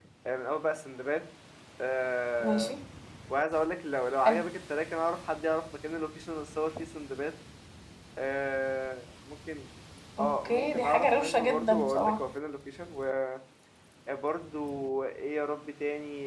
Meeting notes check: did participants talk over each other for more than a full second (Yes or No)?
Yes